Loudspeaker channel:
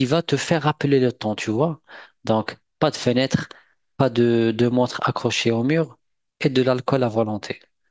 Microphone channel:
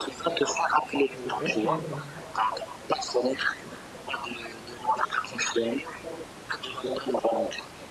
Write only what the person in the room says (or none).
Euh,